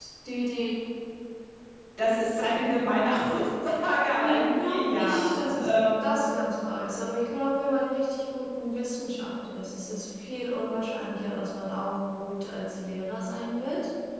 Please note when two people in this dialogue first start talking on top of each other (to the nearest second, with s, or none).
4 s